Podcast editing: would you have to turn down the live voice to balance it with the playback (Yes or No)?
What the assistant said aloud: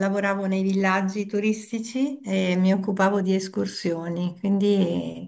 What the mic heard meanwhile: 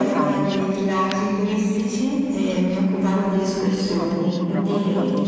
No